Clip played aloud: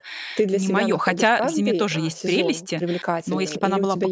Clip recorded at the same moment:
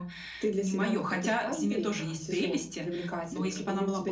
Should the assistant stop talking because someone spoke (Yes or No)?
No